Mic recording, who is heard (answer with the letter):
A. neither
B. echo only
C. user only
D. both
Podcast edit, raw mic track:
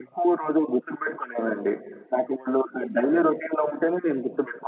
B